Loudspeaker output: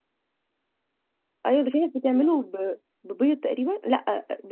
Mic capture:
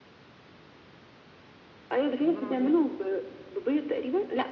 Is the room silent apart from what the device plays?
No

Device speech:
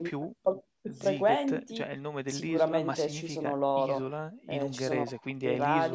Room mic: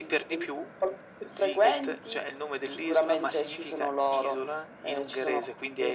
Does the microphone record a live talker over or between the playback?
No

